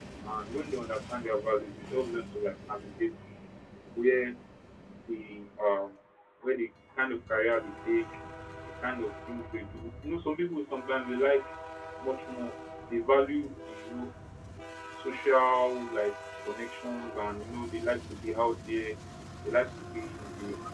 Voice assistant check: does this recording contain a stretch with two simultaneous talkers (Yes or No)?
No